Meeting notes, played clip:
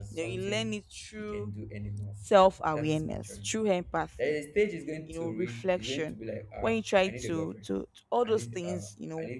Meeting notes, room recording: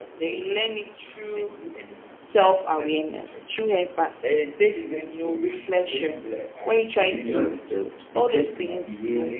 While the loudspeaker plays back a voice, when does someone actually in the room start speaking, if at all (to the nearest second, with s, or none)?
7 s